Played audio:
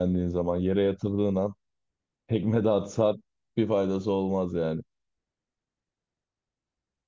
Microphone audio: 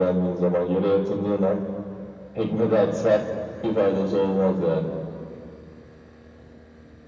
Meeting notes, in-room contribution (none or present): none